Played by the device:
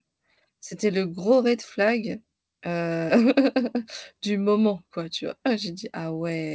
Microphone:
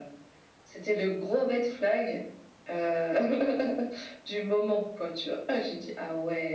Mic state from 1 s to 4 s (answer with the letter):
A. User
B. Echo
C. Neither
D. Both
B